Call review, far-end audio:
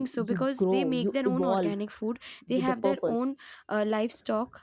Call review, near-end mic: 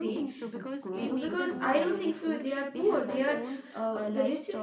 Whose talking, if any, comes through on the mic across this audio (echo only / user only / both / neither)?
both